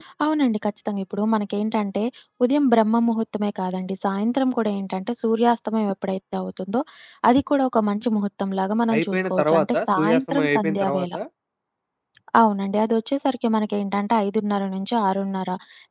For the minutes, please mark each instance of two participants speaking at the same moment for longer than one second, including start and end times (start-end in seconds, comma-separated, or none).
8.9-11.1